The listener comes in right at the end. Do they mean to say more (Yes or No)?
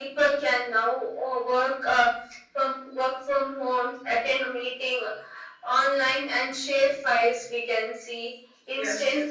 No